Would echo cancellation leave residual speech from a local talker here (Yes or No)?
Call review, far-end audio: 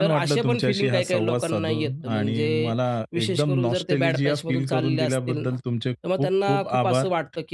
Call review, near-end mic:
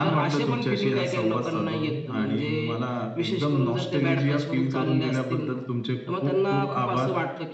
No